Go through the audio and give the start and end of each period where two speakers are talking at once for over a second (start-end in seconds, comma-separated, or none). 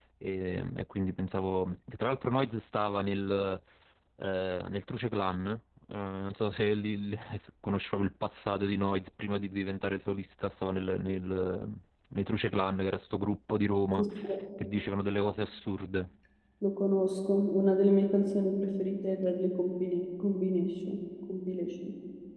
none